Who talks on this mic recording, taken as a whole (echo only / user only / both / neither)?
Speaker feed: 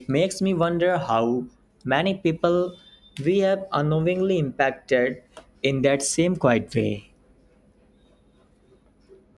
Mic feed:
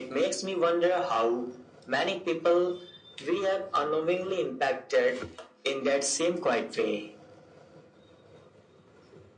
echo only